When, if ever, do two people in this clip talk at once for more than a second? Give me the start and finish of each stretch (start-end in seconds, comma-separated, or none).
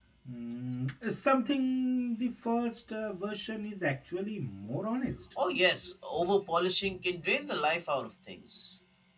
none